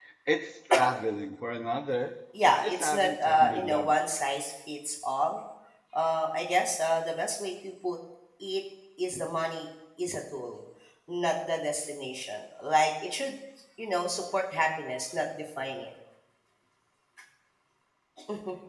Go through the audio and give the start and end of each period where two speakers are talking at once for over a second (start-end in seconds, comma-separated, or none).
2.6-4.0